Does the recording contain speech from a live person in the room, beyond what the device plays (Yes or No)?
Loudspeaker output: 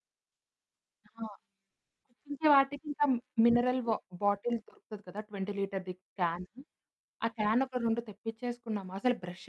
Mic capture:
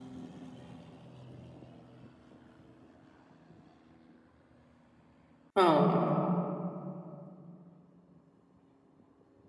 Yes